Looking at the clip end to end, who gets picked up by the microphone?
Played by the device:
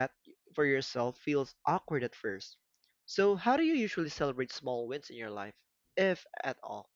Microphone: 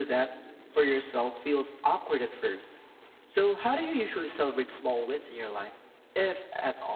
echo only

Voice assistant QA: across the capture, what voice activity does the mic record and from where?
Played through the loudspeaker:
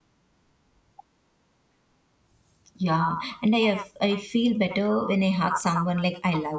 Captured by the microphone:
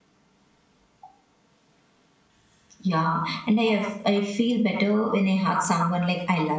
echo only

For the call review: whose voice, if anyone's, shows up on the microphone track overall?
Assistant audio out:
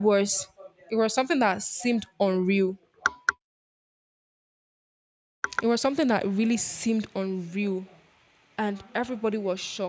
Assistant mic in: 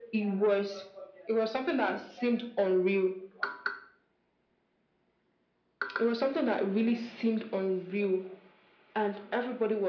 echo only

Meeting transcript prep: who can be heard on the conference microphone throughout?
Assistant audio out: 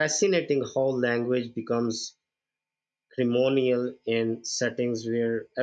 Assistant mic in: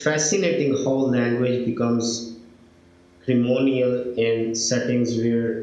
echo only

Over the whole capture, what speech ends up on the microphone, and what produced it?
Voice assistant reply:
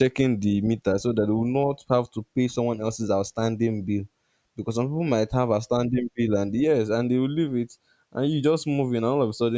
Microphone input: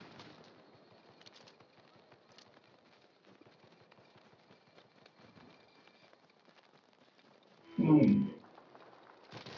user only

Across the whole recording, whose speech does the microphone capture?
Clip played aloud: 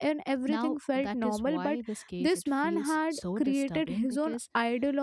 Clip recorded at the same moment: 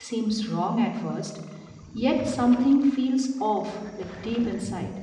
user only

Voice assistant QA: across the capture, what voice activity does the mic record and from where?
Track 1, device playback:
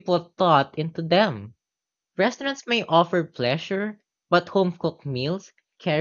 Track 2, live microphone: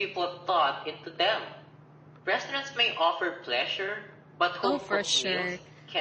both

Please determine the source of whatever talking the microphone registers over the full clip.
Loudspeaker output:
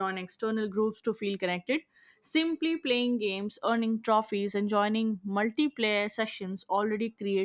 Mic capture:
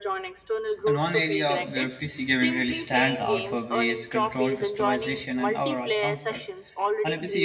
both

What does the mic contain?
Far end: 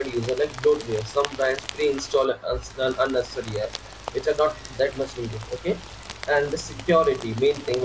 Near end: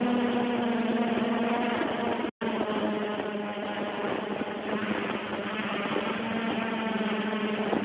neither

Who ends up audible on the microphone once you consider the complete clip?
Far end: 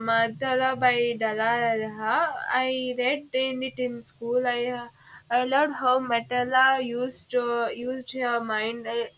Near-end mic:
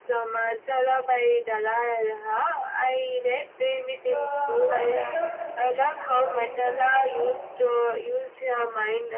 both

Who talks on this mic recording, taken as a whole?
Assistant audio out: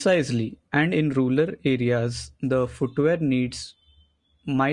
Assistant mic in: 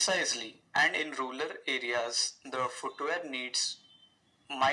echo only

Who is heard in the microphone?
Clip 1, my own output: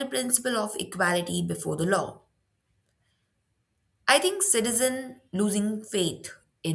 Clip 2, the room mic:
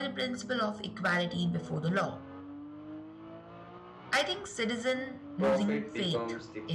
both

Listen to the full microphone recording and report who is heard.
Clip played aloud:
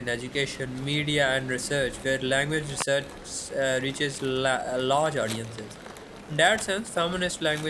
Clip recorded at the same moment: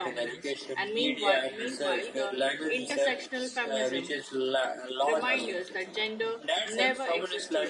both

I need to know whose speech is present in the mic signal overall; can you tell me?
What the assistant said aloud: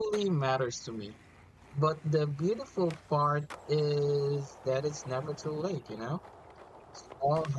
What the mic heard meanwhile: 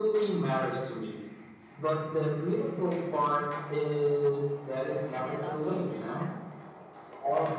both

